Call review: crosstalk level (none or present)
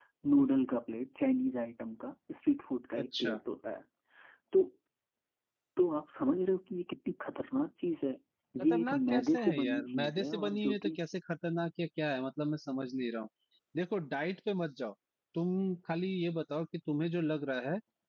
present